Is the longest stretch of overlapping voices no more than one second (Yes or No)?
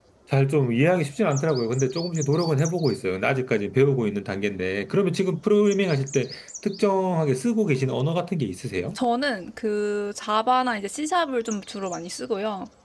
Yes